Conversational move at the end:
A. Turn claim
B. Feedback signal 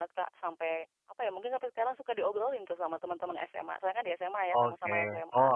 A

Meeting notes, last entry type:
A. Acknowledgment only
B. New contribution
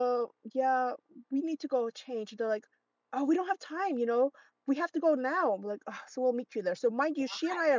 A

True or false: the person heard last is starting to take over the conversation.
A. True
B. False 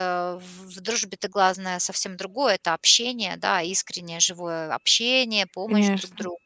B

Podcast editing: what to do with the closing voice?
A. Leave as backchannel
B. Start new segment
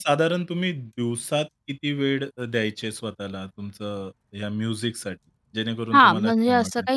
B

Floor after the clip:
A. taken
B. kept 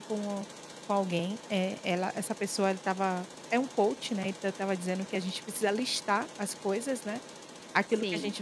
B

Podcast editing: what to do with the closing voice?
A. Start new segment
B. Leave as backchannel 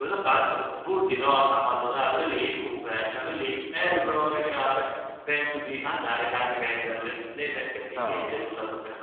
B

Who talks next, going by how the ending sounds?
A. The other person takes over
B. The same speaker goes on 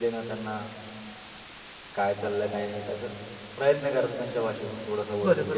A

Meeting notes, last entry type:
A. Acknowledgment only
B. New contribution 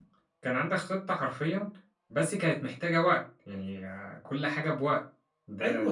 B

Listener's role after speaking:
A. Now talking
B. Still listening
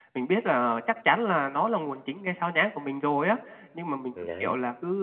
B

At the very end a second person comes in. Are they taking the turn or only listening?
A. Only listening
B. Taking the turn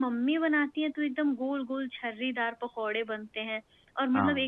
A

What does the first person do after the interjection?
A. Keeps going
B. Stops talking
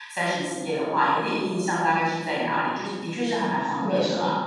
B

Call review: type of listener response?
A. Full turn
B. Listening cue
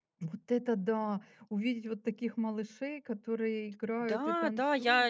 A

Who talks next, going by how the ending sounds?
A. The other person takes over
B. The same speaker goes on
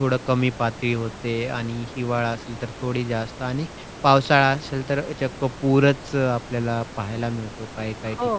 A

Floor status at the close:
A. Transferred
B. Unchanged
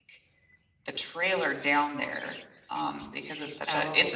A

